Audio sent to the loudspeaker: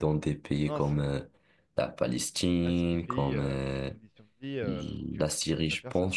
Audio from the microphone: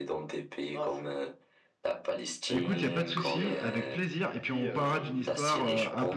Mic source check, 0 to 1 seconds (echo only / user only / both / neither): echo only